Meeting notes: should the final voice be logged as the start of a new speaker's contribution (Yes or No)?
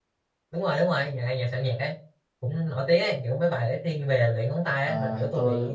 Yes